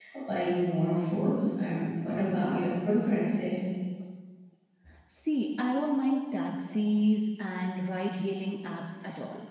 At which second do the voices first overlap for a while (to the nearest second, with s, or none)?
none